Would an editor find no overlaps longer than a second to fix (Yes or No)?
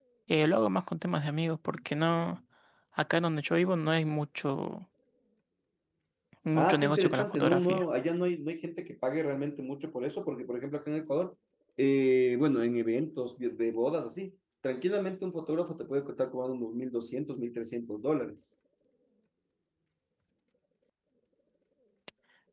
No